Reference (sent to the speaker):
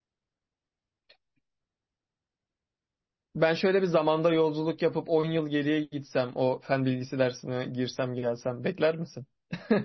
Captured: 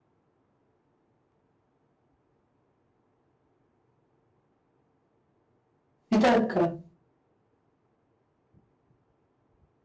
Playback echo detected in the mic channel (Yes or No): No